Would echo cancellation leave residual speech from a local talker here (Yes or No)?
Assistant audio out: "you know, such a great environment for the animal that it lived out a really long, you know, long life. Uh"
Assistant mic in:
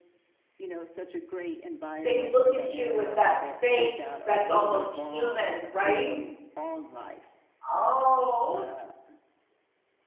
Yes